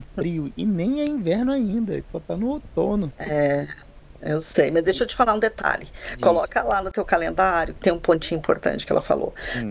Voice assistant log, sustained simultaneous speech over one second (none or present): none